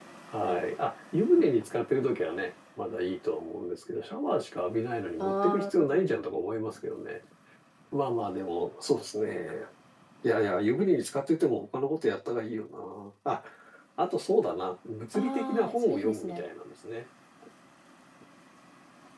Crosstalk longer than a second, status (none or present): present